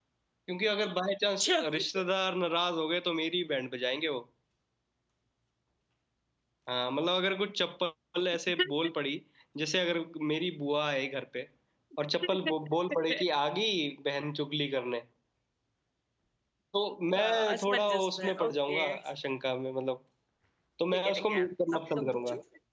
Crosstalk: present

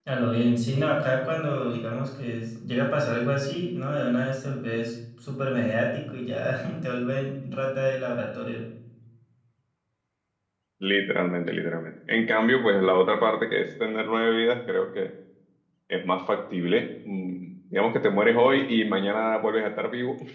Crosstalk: none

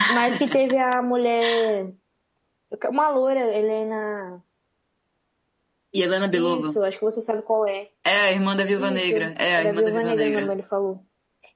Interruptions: present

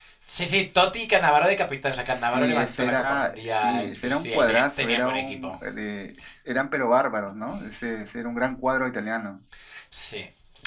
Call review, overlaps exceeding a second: present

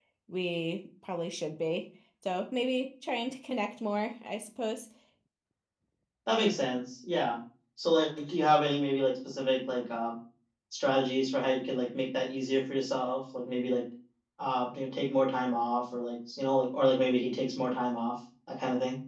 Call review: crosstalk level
none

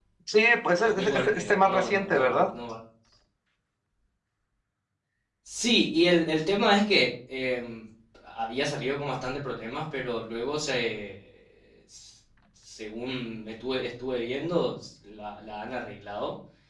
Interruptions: present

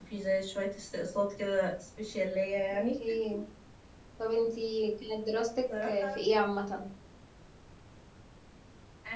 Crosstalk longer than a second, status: none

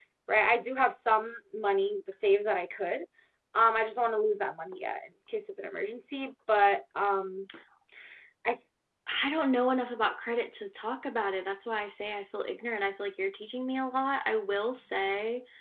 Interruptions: none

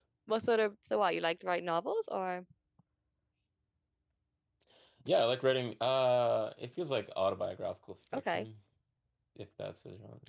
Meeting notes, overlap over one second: none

